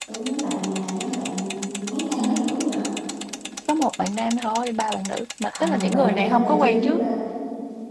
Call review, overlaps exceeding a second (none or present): present